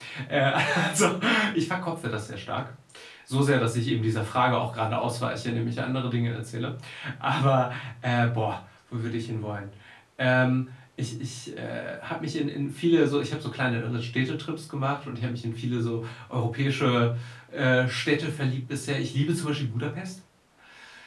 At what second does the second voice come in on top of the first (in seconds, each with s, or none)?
none